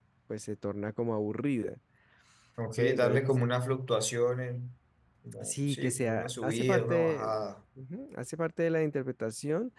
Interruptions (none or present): present